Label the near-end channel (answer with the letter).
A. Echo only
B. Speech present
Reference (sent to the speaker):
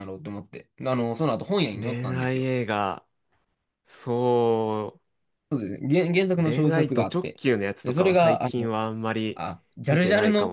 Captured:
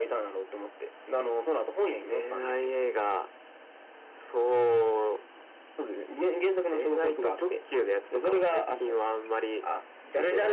A